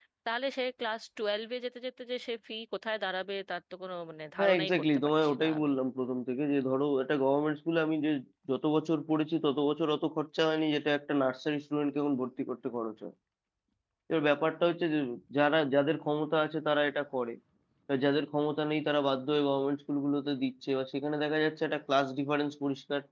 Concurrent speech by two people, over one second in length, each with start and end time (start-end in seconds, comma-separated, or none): 4.4-5.7